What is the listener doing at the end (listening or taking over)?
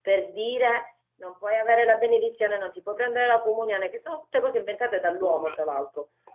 listening